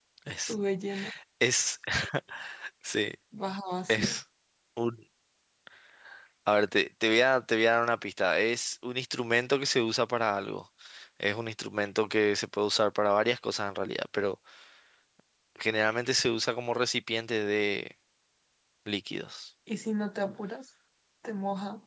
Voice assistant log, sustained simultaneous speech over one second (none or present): none